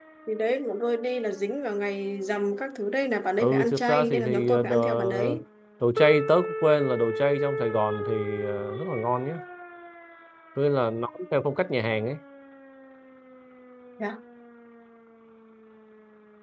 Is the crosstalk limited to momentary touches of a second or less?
No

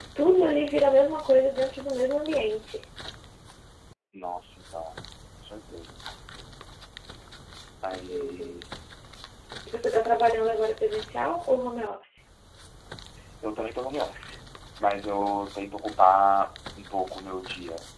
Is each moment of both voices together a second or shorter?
Yes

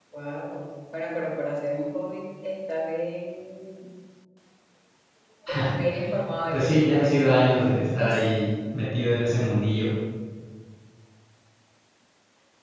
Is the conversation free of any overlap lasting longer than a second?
No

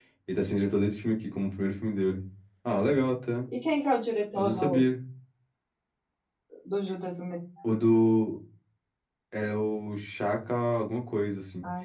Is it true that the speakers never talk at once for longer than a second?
Yes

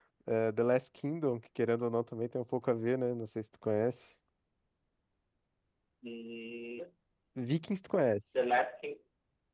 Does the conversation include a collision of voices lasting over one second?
No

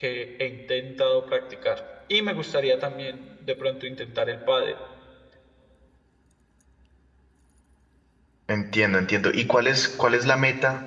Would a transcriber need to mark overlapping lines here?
No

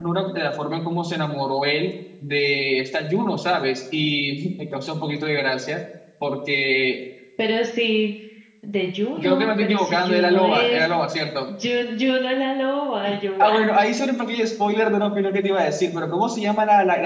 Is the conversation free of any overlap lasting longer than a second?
No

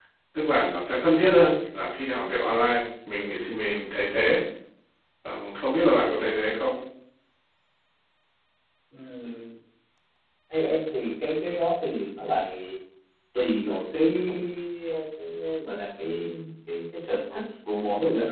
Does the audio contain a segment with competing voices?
No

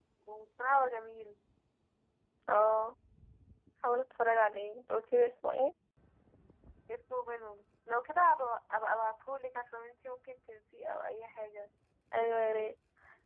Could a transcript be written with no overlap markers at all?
Yes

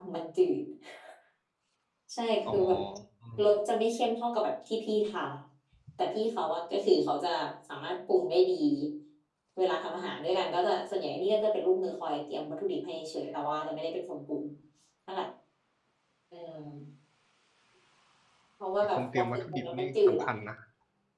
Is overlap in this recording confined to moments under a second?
No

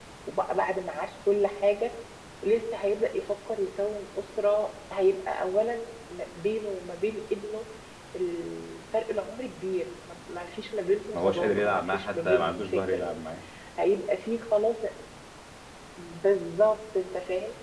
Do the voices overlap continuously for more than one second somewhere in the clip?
Yes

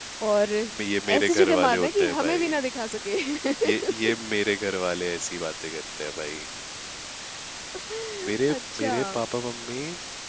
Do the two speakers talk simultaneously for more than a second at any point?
Yes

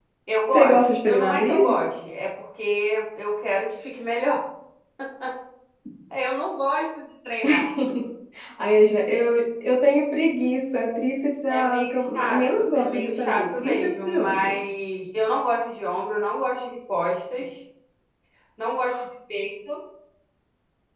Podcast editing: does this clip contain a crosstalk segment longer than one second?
Yes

